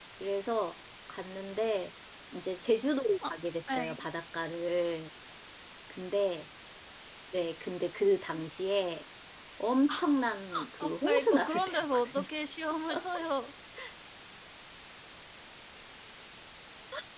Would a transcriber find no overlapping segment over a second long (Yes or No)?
No